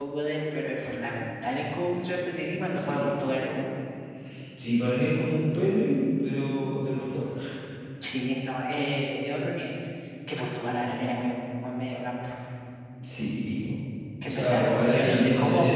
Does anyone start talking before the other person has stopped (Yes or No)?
Yes